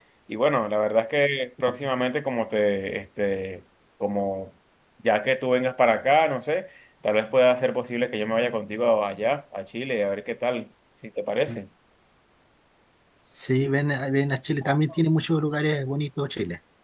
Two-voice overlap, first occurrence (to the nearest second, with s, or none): none